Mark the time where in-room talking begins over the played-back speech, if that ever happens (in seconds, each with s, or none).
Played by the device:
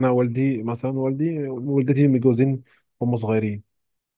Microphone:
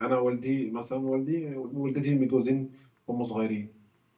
none